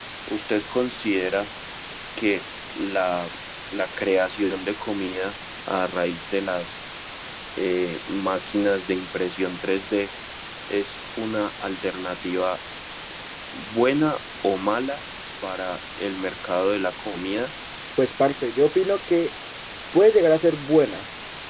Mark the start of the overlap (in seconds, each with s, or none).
none